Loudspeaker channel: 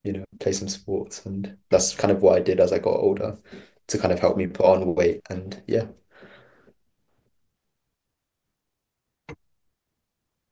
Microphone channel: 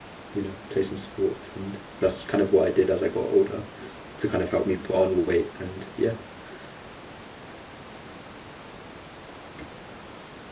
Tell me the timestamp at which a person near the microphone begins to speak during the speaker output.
none

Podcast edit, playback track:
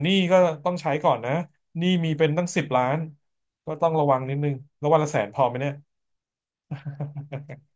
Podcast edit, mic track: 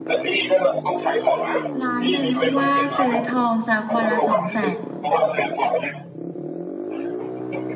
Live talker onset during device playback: 1.8 s

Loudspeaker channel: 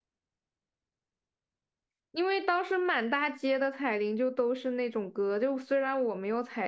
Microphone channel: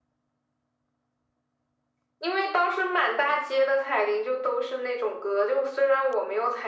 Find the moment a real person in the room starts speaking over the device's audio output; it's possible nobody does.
none

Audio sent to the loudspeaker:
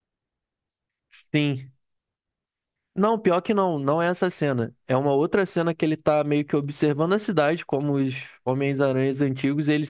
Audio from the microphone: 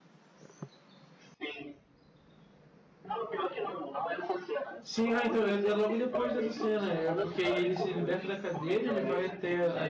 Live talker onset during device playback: 4.8 s

